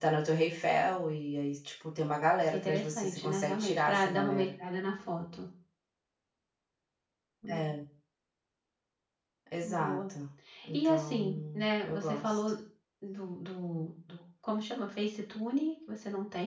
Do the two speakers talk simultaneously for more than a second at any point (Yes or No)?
Yes